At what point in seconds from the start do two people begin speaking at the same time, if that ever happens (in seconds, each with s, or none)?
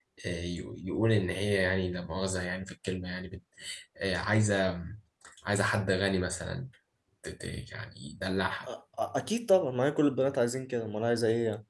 none